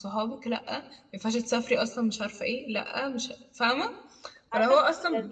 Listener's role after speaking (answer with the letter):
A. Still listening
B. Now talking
B